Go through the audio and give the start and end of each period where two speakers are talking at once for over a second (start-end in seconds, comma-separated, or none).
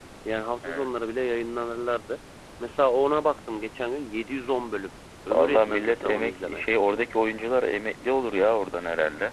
5.3-6.6